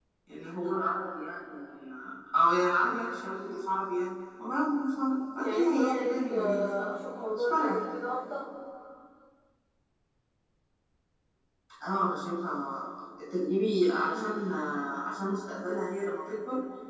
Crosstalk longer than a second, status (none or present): present